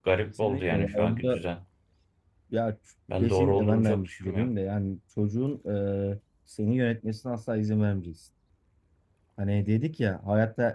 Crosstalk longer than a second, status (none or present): present